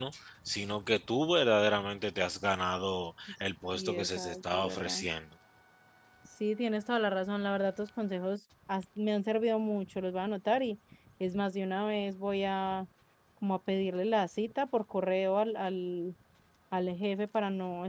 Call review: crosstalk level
present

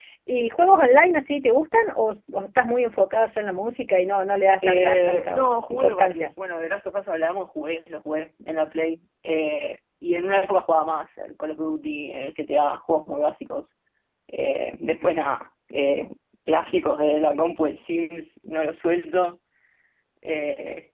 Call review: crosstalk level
present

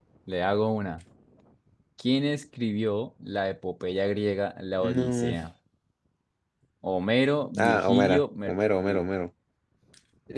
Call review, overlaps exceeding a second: present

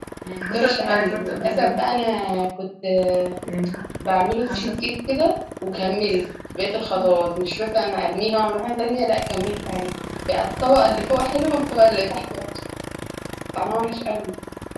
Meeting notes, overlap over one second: present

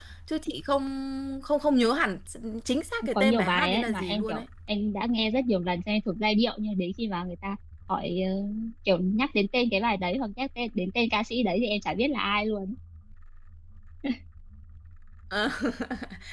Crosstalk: present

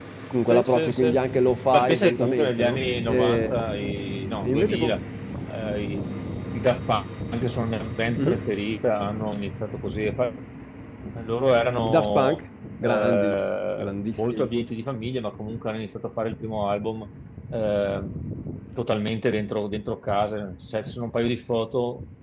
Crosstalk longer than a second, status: present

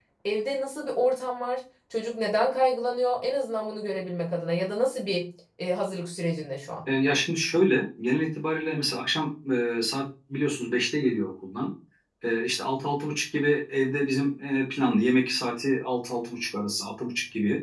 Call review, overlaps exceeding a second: none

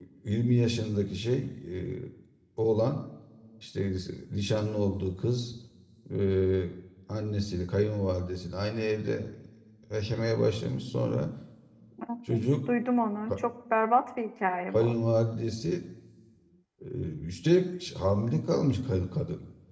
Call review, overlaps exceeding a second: none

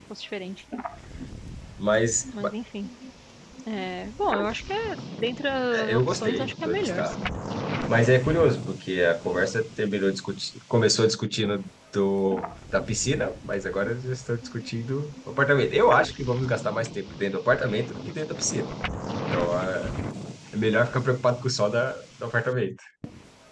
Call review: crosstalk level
present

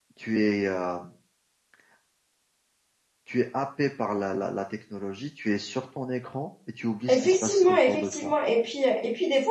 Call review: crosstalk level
present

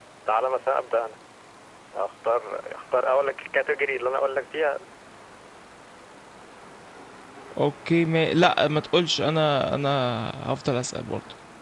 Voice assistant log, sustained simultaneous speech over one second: none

